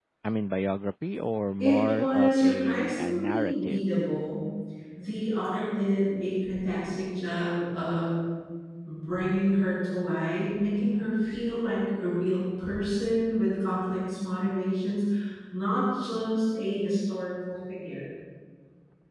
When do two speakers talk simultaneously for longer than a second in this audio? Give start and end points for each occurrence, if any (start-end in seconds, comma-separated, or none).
1.6-3.8